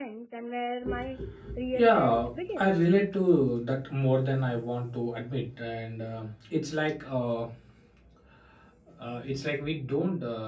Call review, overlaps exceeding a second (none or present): present